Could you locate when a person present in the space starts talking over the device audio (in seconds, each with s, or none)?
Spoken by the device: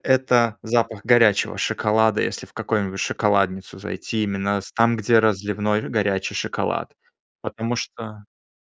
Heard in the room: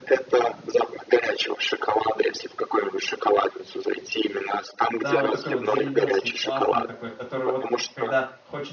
5.0 s